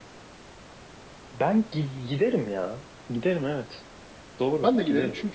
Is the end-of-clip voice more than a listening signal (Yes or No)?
Yes